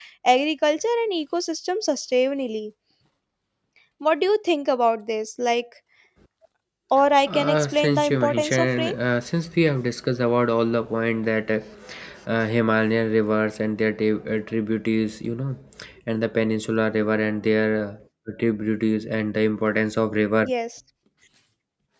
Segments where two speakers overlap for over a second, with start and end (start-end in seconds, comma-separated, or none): 7.3-8.9